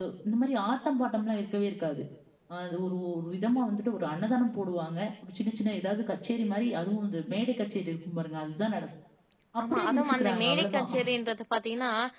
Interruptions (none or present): present